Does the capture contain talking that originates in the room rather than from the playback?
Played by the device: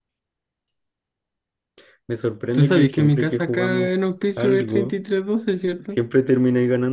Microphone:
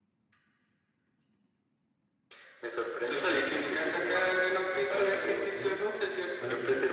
Yes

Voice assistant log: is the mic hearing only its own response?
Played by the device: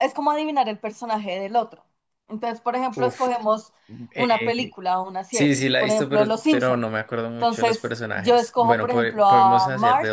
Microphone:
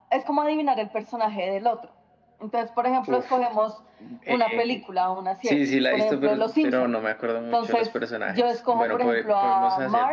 Yes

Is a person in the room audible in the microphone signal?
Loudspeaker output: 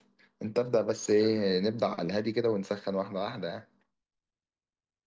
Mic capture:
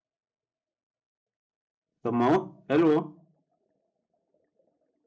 Yes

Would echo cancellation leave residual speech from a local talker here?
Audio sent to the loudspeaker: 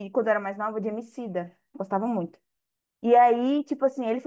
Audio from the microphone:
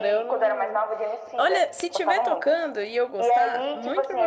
Yes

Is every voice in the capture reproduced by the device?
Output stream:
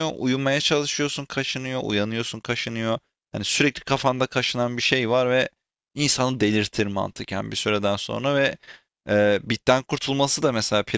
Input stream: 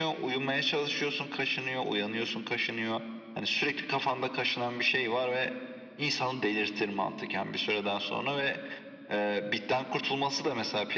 Yes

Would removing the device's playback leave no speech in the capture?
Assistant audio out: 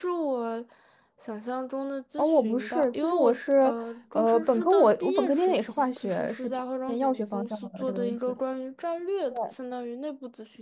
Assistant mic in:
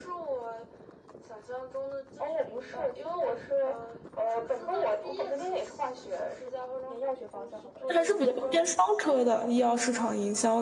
No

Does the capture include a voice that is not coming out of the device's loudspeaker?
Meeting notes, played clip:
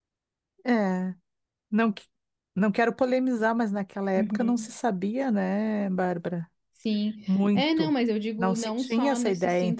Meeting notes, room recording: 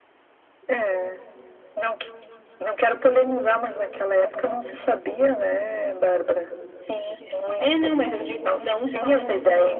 No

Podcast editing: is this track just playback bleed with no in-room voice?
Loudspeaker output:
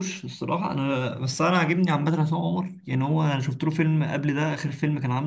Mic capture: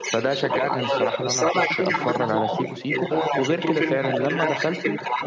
No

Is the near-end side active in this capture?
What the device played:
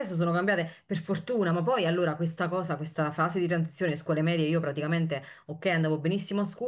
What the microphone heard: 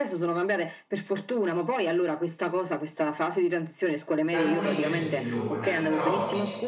Yes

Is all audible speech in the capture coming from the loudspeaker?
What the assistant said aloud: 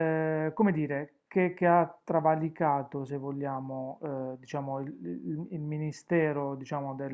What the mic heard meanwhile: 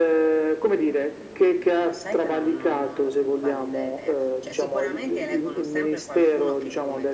No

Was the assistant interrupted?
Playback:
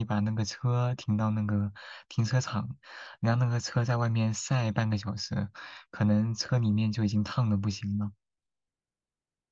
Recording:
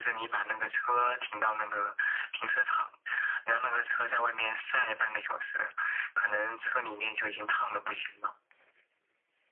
No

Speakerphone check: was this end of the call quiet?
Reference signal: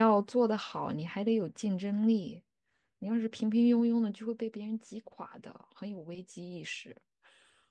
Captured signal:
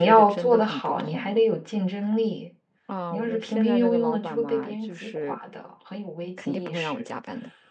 No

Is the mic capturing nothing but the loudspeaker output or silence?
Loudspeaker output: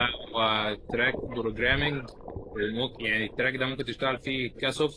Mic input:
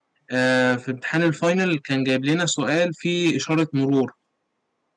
No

